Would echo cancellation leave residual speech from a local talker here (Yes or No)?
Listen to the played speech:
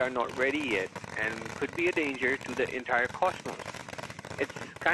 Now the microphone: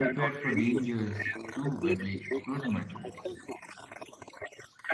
Yes